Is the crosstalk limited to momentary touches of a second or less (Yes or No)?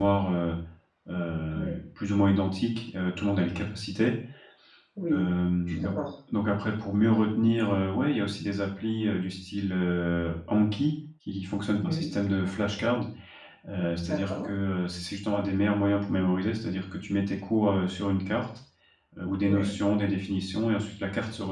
Yes